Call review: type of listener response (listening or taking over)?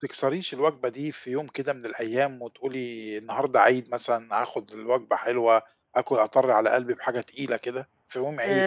taking over